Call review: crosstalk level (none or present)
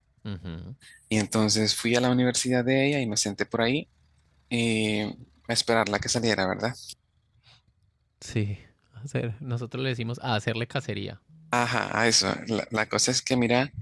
none